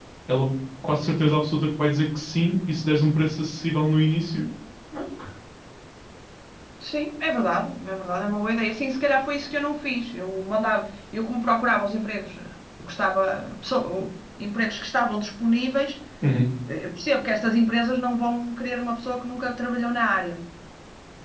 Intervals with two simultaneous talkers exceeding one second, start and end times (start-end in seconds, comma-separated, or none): none